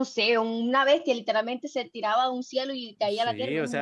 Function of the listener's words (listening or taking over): taking over